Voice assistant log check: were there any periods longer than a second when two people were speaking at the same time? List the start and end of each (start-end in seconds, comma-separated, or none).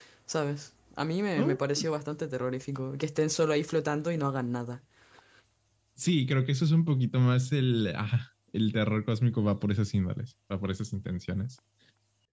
none